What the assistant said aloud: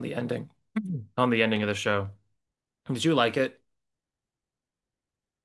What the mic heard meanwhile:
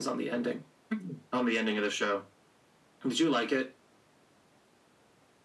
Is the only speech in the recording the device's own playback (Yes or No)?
Yes